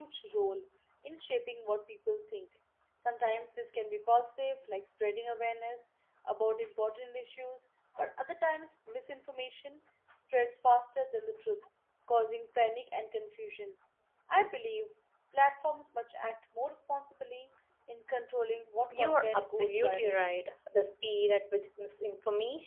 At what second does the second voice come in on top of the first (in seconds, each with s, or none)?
18.9 s